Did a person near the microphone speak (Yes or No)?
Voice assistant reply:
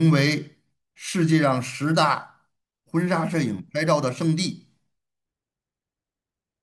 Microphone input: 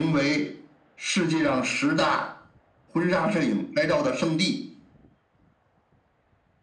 No